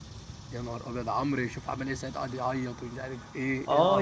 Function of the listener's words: taking over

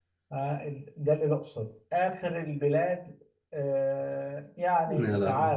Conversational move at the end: listening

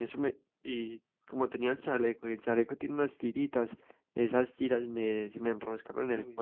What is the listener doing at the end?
listening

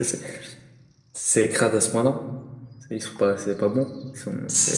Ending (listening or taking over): taking over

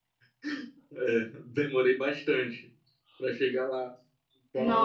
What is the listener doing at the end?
taking over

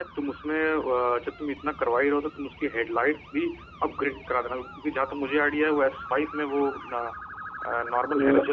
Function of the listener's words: taking over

